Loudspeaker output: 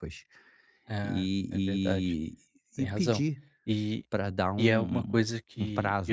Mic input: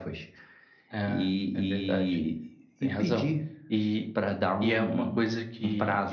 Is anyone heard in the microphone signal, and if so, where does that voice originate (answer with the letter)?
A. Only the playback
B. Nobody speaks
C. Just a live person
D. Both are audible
A